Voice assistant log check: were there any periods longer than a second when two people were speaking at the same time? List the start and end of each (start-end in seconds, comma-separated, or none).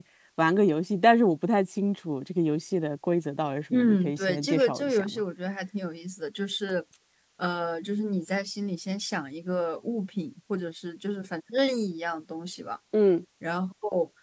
3.7-5.2